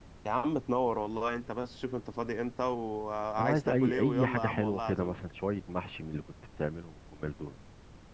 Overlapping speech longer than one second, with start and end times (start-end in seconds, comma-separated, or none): 3.4-5.2